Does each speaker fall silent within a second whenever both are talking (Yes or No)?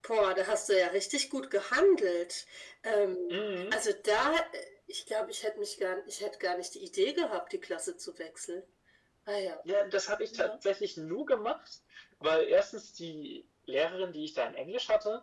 Yes